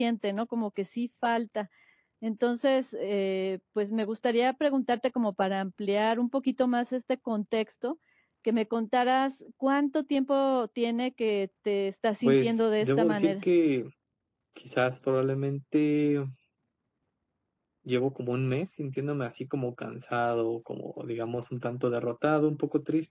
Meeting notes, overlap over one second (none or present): present